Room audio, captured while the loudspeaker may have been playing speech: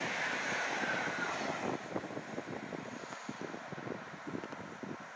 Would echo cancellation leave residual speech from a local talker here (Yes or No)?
No